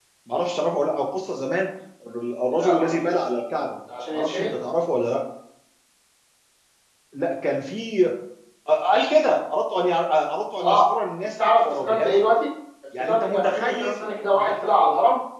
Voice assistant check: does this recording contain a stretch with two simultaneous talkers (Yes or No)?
Yes